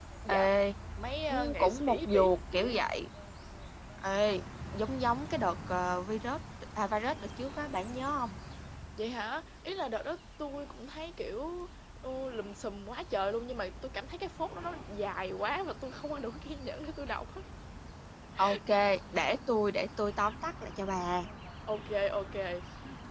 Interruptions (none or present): present